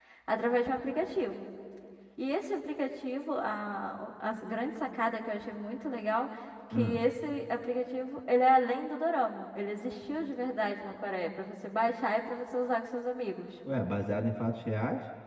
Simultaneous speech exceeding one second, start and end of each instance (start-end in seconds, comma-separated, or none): none